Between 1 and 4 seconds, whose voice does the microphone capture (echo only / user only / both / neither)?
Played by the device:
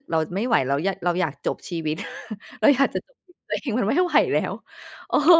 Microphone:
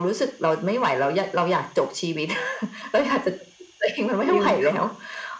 echo only